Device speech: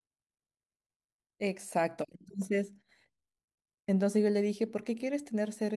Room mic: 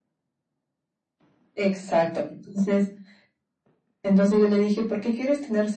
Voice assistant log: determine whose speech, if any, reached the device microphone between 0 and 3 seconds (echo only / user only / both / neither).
echo only